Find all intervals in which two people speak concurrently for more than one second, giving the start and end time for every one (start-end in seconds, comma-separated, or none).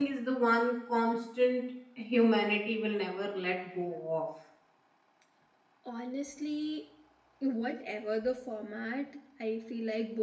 none